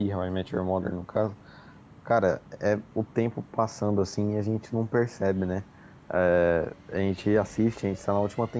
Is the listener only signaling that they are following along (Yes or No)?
Yes